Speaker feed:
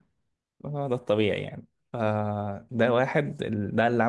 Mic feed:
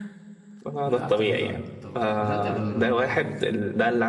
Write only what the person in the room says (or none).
لا لعبت فالورنت طبعا بدات فالورنت